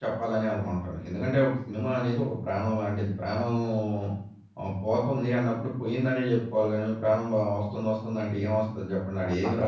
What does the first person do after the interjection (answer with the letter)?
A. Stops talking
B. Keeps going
A